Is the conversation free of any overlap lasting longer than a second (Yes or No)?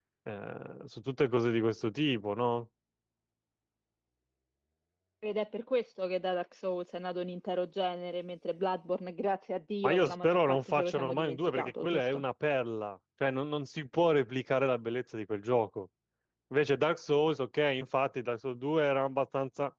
No